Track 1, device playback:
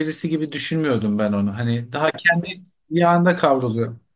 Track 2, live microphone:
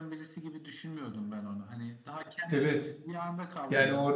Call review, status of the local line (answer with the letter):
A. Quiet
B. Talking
B